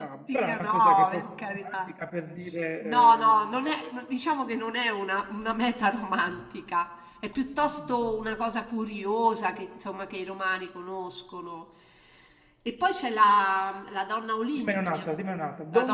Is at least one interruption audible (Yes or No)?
Yes